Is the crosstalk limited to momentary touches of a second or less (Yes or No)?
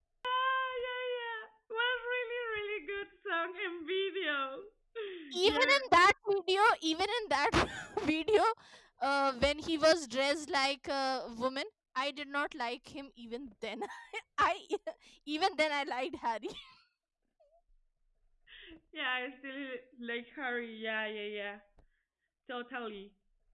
Yes